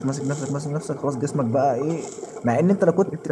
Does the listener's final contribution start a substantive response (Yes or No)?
No